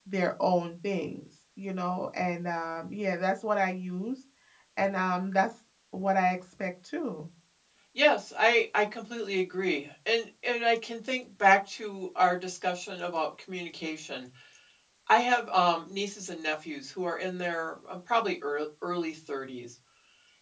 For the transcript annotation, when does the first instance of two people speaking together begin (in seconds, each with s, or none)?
none